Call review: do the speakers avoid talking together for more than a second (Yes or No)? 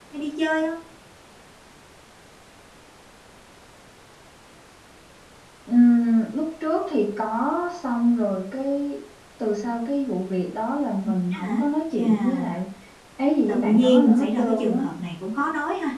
No